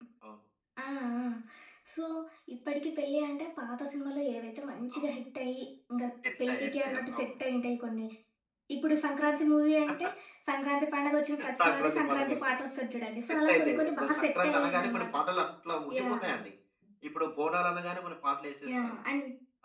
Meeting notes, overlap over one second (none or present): present